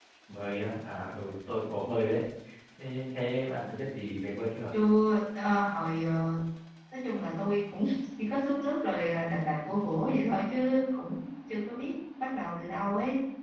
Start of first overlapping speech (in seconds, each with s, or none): none